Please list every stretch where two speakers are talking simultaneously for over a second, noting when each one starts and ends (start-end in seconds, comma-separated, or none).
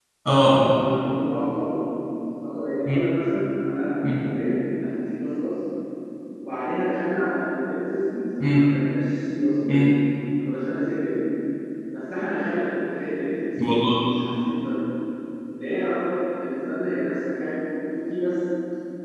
none